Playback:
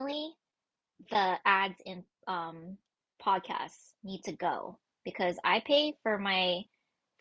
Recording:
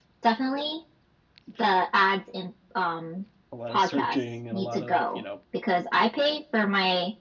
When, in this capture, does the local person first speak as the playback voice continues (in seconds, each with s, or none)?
3.5 s